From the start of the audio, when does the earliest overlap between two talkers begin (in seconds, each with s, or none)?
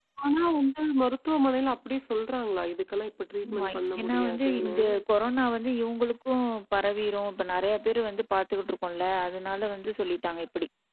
3.4 s